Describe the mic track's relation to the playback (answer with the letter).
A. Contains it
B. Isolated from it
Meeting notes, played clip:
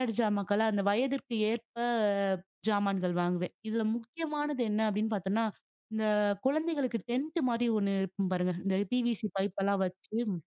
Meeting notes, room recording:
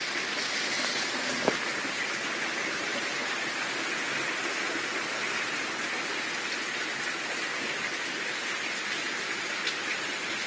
B